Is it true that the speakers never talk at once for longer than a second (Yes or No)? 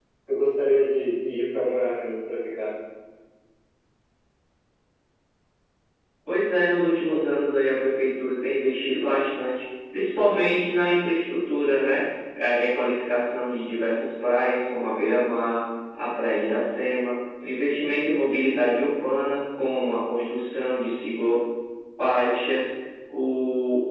Yes